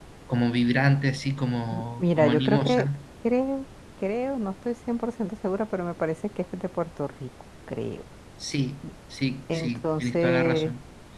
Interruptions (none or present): present